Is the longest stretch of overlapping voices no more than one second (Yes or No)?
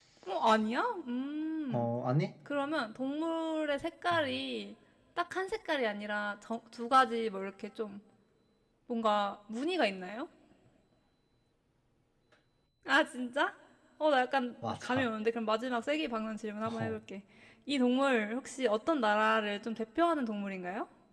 Yes